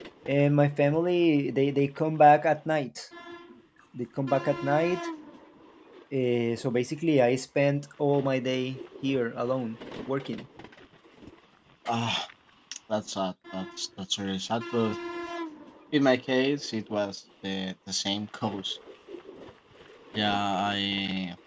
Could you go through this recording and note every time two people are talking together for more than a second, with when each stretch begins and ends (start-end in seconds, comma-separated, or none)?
none